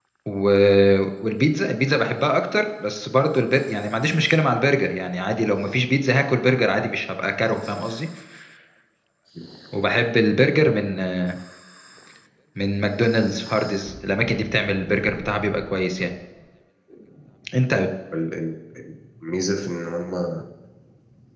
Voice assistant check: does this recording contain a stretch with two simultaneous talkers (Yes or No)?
No